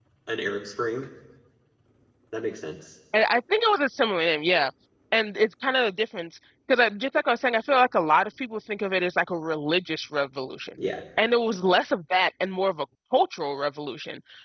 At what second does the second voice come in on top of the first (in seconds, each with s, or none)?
none